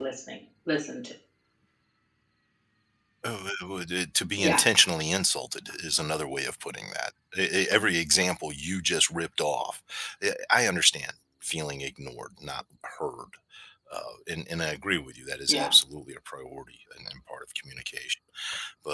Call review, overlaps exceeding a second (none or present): none